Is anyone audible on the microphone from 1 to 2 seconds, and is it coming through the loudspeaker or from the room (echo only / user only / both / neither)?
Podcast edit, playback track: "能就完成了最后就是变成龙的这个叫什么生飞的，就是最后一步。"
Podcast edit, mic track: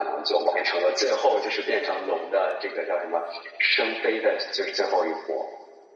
echo only